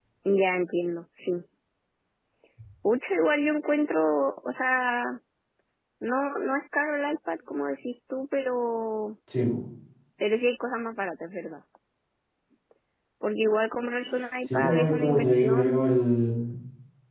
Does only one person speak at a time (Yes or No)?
No